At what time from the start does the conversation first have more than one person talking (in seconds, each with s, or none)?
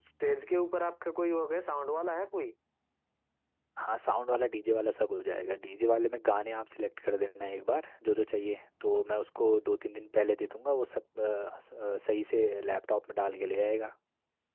none